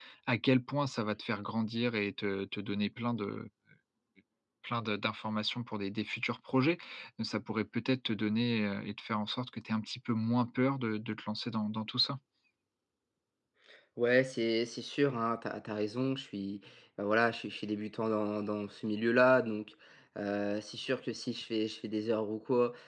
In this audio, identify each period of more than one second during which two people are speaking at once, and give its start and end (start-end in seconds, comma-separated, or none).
none